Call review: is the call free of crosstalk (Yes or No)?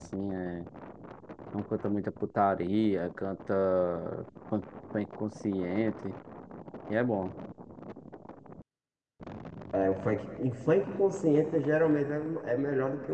Yes